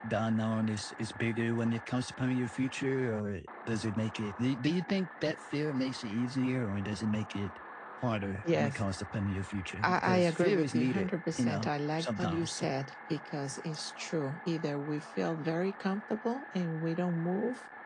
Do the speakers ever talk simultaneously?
Yes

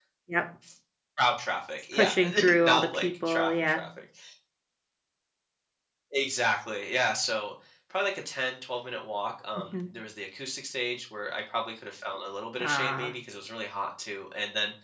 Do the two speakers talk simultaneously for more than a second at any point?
Yes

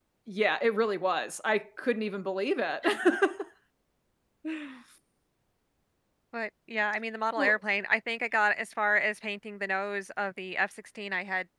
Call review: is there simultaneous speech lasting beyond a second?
No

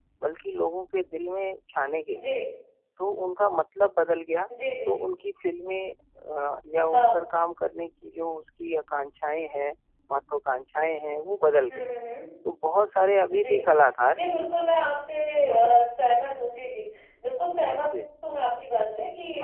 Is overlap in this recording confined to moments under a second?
Yes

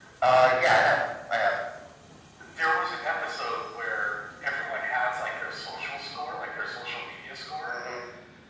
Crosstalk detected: No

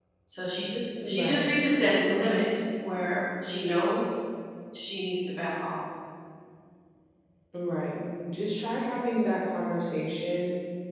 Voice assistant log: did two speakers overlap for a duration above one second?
No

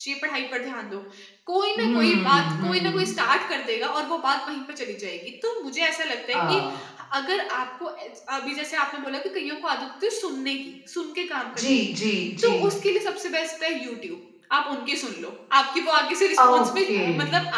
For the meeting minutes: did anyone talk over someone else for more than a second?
Yes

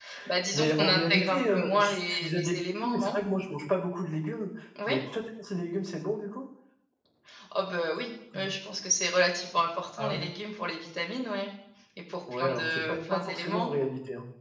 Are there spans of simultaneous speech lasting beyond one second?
Yes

